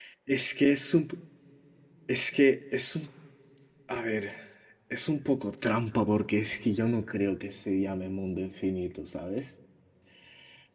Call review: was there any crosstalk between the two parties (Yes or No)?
No